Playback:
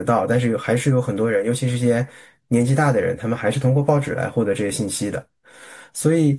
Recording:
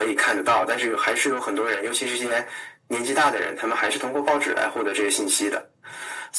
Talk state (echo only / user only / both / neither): echo only